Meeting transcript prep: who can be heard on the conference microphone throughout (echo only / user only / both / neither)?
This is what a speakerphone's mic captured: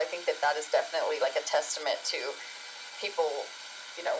echo only